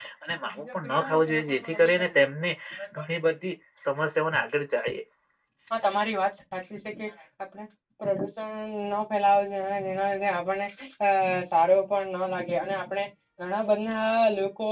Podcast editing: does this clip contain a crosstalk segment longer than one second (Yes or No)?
Yes